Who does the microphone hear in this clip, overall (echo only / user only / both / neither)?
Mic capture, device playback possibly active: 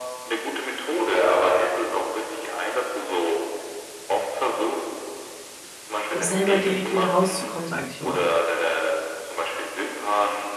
both